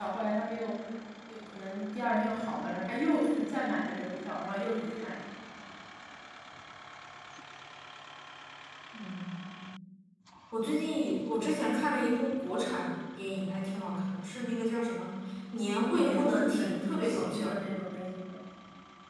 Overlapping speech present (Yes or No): Yes